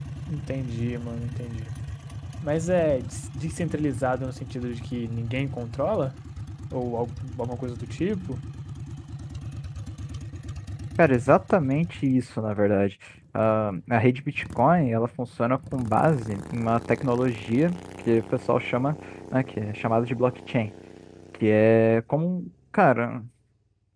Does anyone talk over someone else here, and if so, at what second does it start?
none

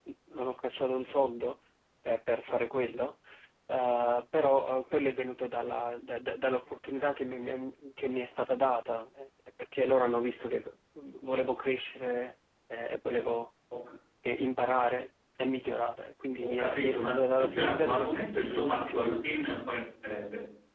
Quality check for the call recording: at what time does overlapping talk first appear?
16.4 s

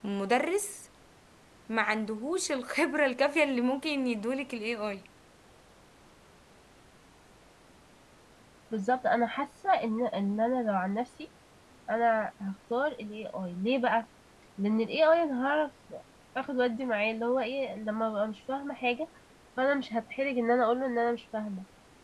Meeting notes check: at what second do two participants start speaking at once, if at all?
none

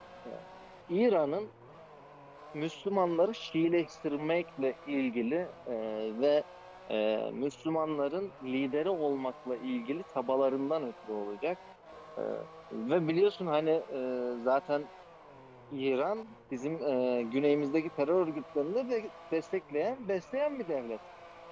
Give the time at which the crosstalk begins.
none

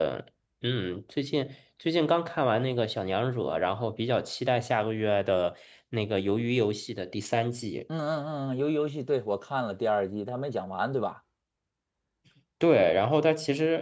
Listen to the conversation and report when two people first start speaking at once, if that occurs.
none

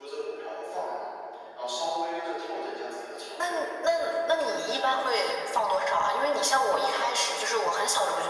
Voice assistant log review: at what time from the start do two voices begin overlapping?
3.4 s

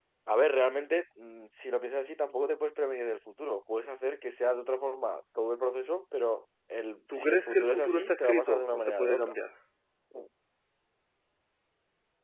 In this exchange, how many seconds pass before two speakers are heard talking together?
7.1 s

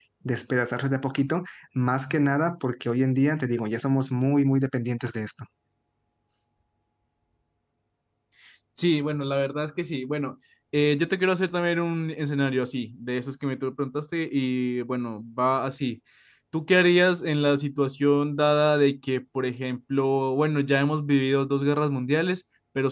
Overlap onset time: none

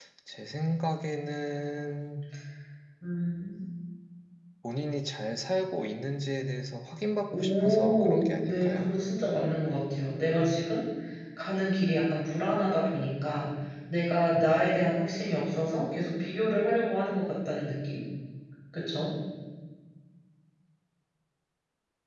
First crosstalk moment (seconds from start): 7.3 s

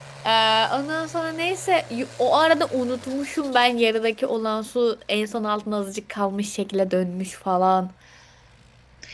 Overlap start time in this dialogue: none

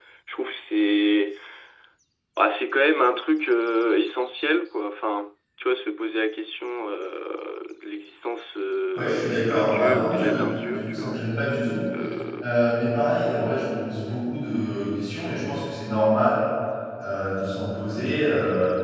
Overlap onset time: 9.0 s

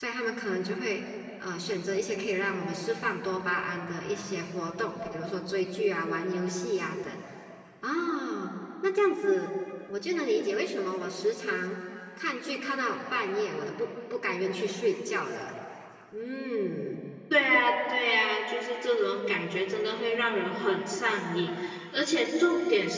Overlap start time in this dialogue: none

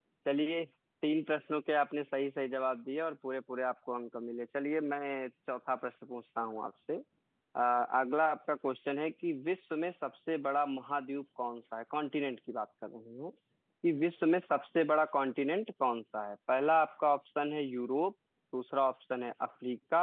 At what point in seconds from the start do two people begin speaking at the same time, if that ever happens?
none

